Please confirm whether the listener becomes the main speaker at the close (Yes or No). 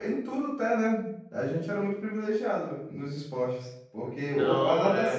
No